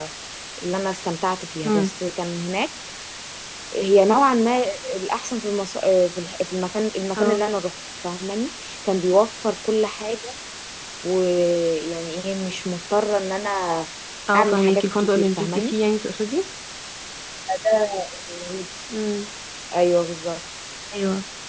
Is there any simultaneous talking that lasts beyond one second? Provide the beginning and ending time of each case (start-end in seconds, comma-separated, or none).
14.4-15.8